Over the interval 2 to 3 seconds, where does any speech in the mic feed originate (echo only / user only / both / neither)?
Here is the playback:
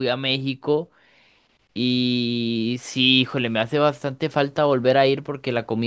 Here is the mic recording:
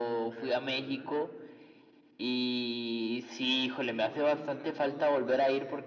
echo only